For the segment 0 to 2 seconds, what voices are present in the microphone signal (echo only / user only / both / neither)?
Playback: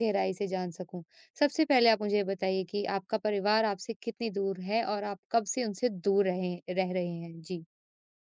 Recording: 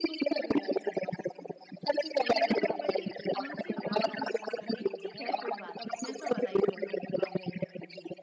echo only